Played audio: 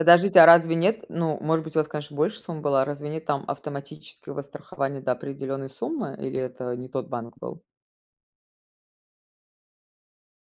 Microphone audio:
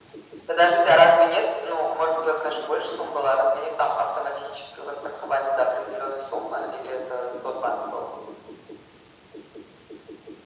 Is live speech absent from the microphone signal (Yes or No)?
Yes